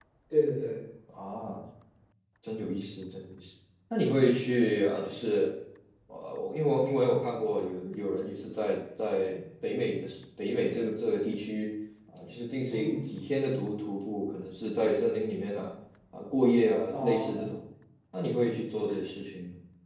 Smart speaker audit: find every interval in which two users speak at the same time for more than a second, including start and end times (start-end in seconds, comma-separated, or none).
none